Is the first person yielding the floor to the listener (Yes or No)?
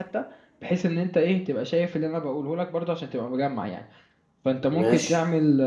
No